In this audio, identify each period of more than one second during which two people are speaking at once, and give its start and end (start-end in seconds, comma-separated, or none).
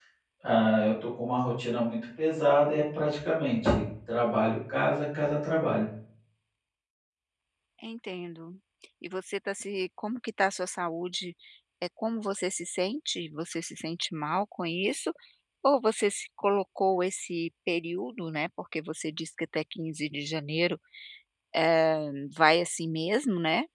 none